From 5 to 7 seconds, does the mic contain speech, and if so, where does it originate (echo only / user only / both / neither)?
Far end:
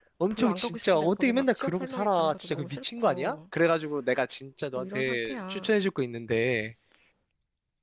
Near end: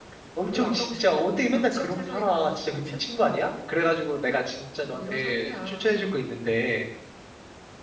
echo only